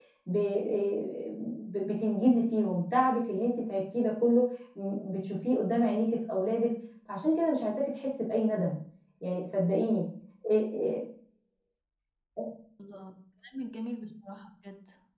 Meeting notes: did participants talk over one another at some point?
No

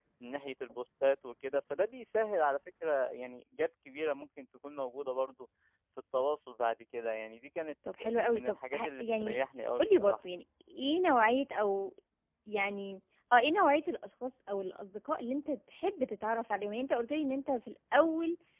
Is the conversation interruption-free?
No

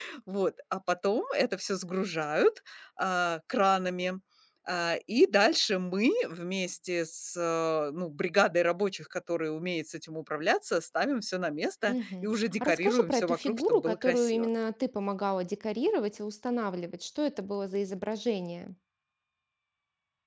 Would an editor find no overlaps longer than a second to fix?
No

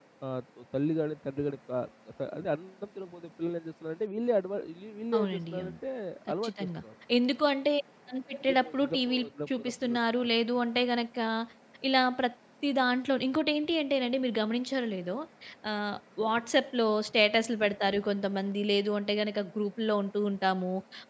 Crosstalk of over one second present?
Yes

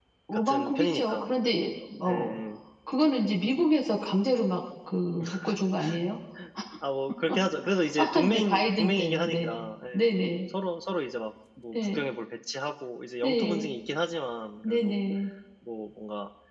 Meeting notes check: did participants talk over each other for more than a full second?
Yes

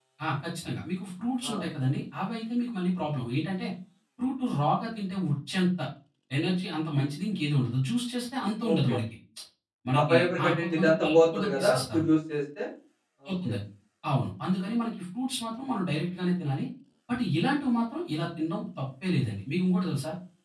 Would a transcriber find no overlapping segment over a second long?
No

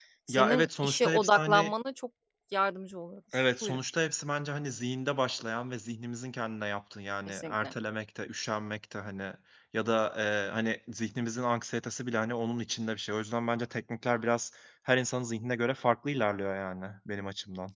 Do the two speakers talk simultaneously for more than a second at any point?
Yes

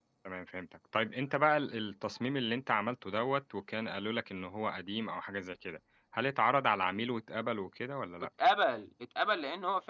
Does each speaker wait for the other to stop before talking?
Yes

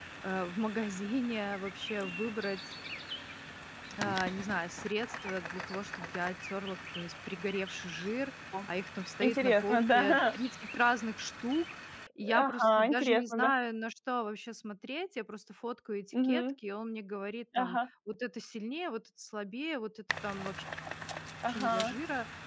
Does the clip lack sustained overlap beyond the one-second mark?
No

